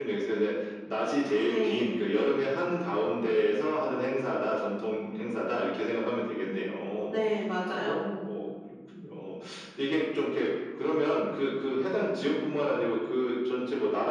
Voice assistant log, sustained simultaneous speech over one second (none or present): none